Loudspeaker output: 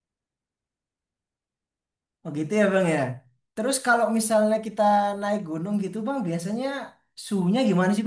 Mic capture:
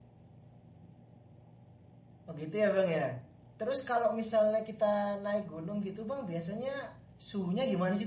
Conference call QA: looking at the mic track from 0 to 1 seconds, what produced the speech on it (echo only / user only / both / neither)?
neither